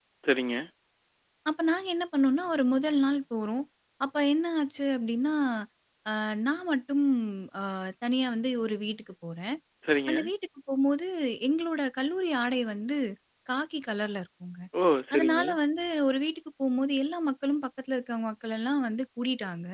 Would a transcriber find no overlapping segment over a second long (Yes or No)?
Yes